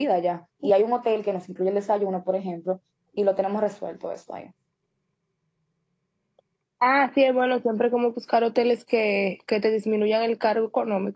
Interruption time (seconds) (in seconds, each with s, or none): none